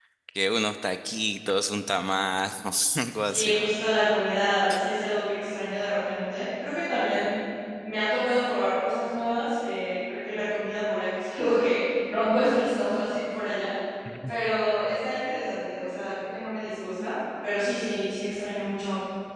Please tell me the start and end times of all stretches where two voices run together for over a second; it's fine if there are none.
none

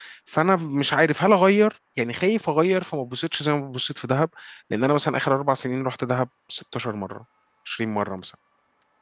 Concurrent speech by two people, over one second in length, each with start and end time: none

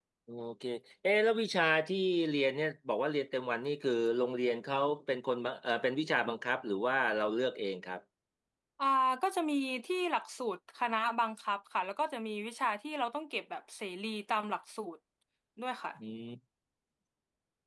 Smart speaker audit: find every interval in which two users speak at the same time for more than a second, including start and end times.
none

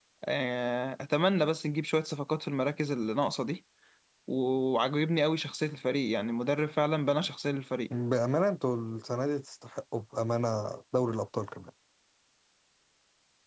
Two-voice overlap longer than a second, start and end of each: none

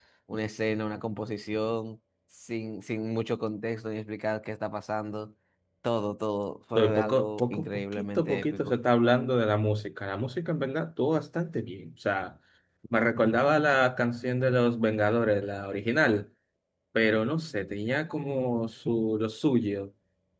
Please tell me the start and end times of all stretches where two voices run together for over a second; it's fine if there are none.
6.8-8.7

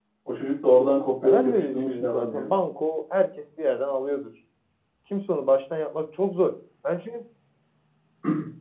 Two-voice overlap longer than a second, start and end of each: 1.2-2.5

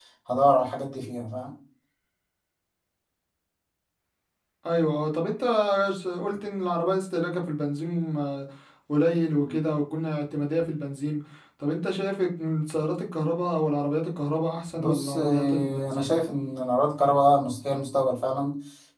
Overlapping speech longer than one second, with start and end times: 14.8-16.2

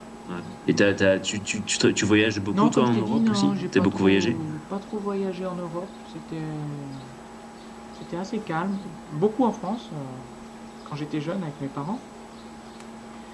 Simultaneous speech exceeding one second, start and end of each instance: 2.5-4.5

